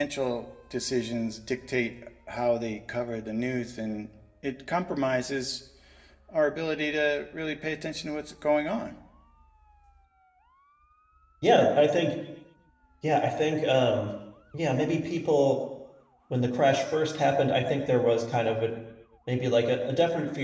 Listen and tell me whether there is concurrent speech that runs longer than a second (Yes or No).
No